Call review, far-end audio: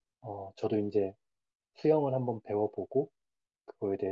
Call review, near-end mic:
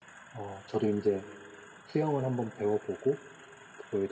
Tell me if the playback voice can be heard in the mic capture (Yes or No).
Yes